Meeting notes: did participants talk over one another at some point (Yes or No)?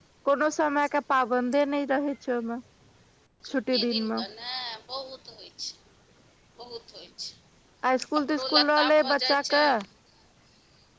Yes